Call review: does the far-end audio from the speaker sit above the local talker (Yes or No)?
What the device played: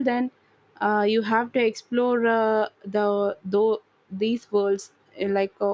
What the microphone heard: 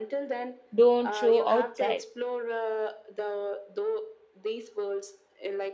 No